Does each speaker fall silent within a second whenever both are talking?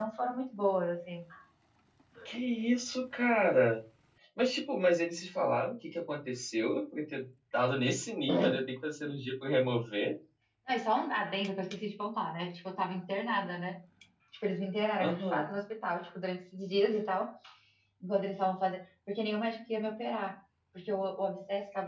Yes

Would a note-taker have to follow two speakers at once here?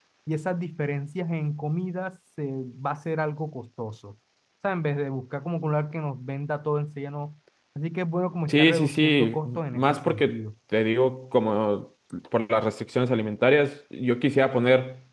Yes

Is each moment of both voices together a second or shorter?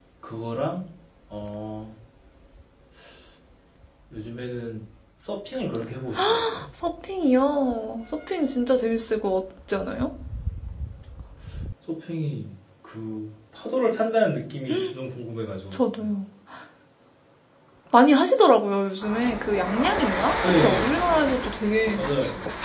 Yes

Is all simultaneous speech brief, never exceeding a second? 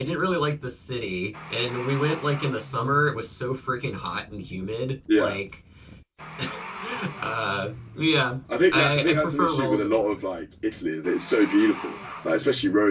No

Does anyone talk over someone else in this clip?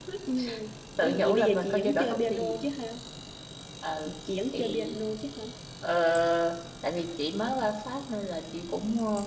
Yes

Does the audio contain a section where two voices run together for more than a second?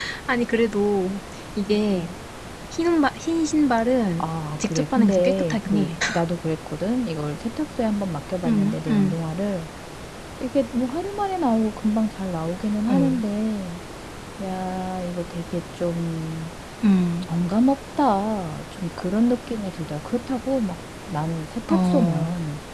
Yes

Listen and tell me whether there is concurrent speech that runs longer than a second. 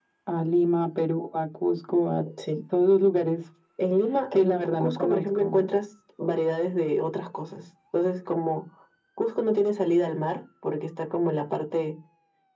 Yes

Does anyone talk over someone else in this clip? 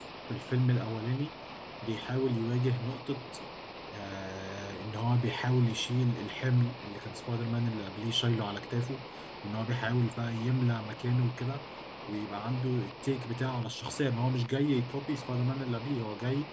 No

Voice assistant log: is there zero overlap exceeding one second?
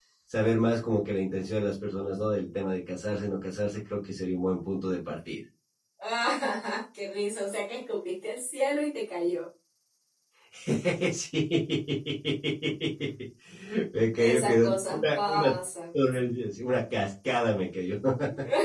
No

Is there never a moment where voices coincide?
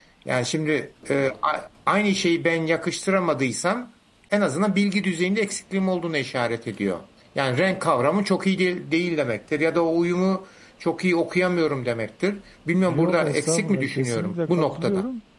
No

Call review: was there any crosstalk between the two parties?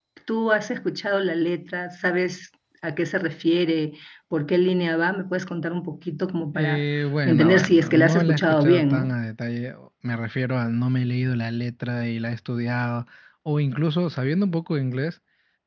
Yes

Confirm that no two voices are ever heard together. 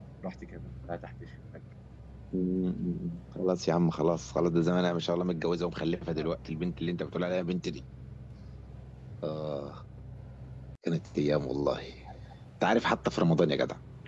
Yes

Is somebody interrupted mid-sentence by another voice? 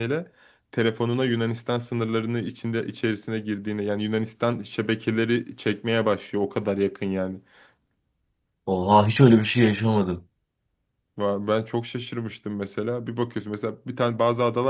No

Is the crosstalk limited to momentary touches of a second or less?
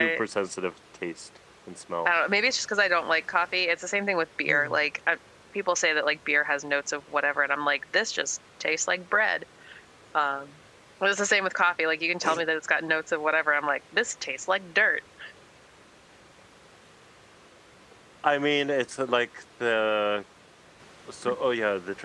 Yes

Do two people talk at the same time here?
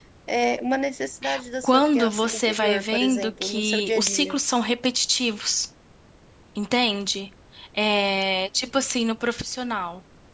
Yes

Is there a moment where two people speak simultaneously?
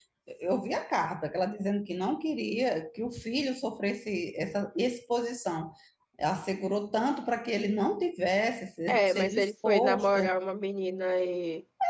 Yes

